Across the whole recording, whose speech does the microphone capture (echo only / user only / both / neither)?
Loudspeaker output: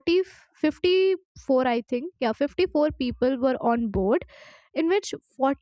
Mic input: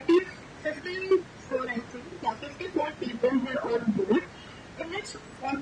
echo only